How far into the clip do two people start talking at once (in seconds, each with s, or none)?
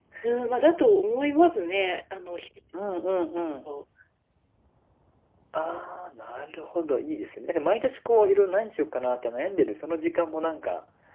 none